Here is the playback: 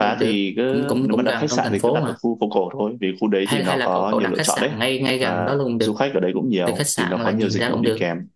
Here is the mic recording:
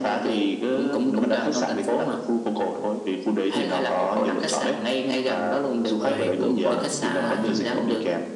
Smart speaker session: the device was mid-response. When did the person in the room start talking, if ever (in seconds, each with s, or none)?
6.0 s